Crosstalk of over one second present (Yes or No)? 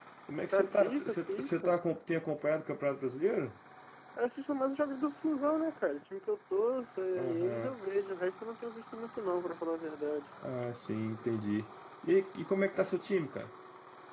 Yes